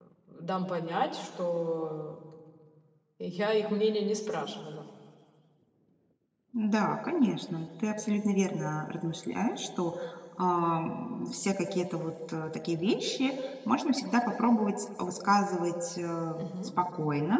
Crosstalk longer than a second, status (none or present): none